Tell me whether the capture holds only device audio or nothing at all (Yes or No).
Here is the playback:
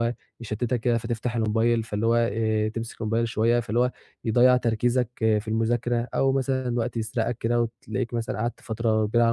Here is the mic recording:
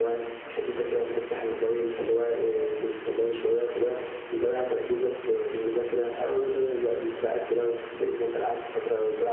Yes